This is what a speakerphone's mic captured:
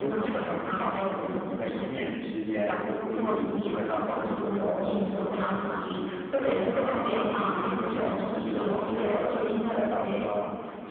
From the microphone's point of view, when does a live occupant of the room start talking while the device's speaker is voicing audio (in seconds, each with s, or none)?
none